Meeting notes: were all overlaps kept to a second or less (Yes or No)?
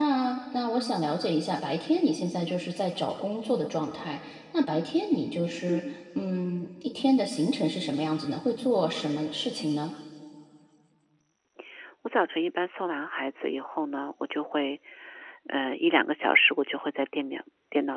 Yes